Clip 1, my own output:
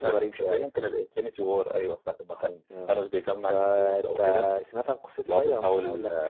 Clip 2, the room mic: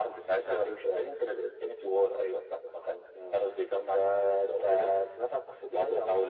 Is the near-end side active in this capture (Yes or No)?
No